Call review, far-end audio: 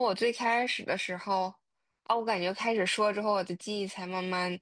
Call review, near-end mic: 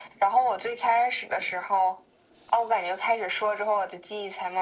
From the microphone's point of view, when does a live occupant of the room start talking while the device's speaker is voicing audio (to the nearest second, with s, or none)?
none